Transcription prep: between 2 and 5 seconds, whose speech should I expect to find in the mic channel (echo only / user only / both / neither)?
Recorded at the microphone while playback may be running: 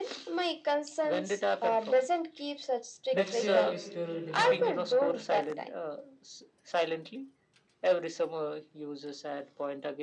both